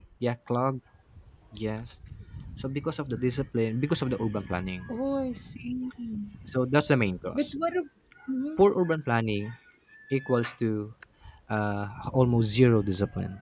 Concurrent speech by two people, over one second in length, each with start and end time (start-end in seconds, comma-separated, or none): none